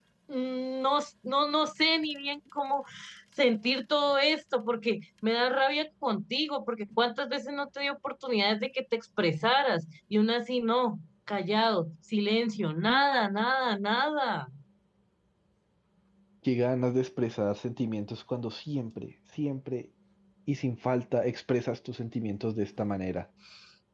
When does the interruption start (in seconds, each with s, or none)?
none